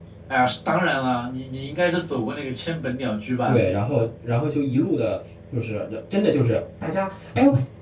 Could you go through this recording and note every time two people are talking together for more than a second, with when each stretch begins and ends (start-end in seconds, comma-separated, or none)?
none